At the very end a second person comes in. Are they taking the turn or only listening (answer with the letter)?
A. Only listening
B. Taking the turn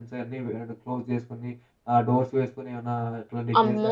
B